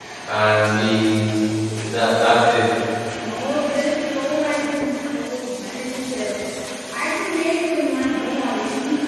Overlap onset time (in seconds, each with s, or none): none